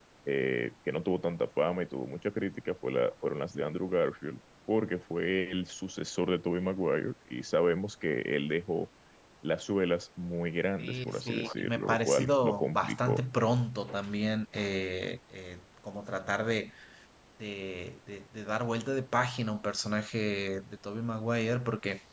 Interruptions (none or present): present